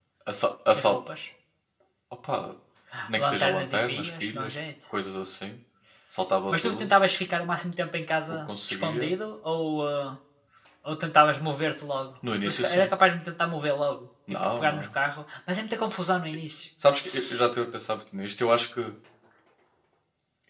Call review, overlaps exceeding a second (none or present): present